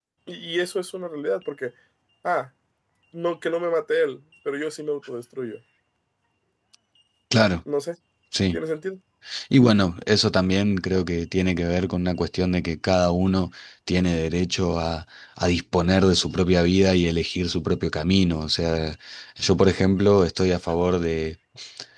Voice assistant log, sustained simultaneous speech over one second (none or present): none